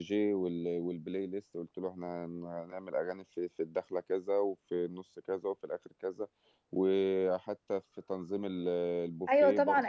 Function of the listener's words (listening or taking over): taking over